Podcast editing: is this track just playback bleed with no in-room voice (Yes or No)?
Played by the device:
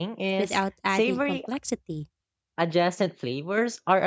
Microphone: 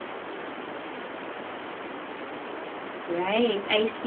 No